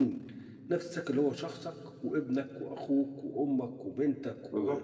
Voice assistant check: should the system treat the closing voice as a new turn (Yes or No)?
Yes